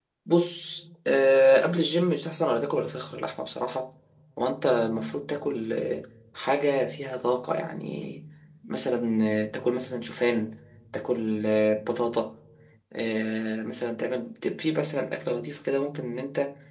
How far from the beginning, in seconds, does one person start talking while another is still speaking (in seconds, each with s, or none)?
none